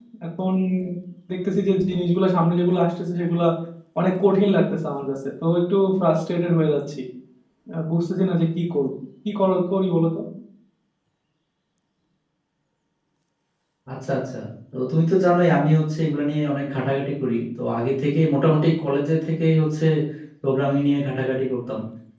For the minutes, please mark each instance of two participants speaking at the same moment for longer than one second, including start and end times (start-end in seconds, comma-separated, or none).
none